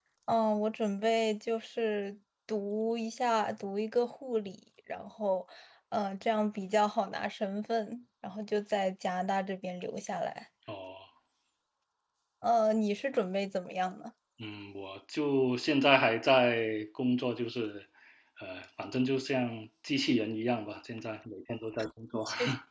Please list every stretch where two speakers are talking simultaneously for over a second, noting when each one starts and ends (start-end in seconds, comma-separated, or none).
none